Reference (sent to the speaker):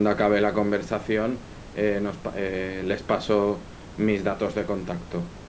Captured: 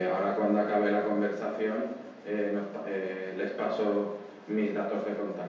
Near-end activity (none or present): none